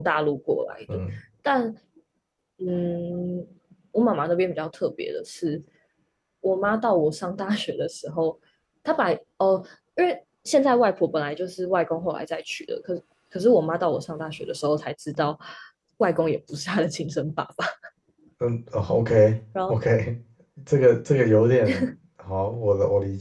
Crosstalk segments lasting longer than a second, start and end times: none

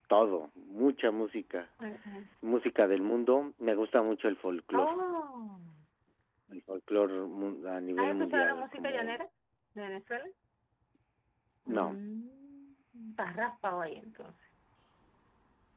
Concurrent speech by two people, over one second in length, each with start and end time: 8.0-9.2

